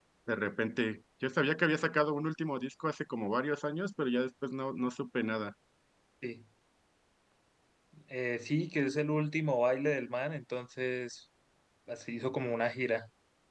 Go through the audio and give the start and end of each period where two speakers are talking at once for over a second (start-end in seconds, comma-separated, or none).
none